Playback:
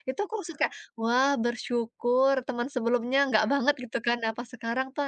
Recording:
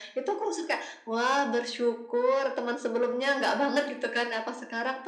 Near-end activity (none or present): none